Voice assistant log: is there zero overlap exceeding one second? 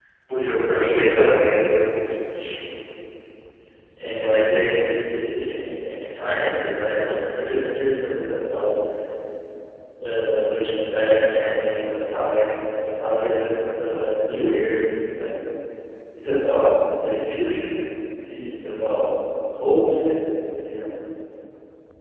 Yes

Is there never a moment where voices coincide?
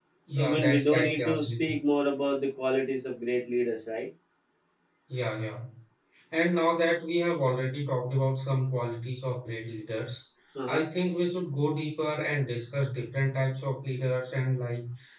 No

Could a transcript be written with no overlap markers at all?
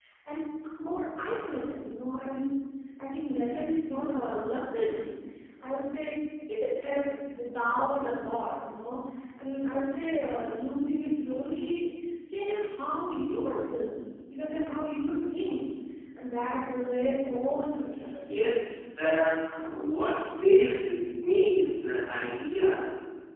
Yes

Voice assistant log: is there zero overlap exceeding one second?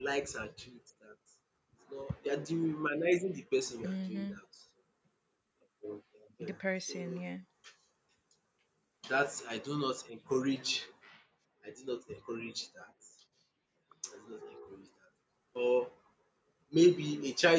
Yes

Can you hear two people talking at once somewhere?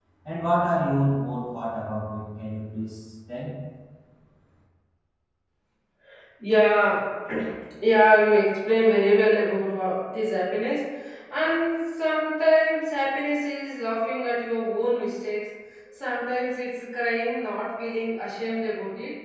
No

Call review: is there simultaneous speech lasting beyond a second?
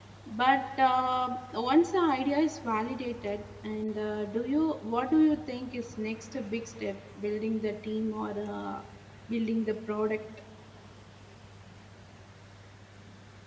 No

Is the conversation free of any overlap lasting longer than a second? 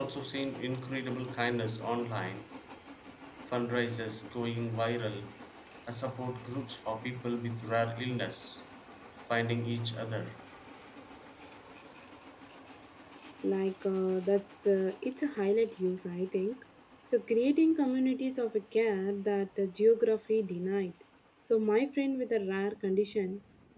Yes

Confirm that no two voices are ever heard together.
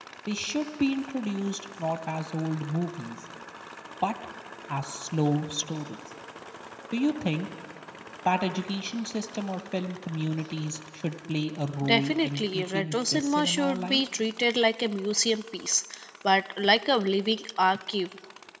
No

